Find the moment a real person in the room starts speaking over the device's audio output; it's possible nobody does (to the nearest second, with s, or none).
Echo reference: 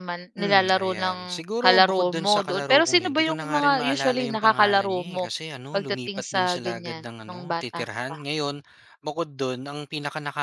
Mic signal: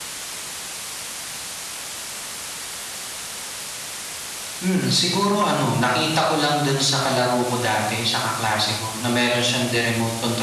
5 s